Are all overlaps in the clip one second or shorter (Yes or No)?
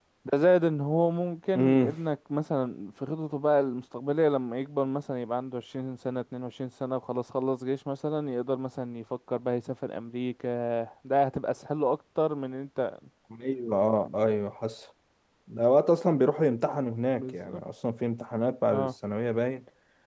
Yes